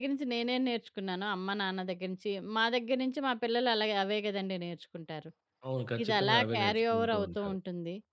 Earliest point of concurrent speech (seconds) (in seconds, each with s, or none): 6.0 s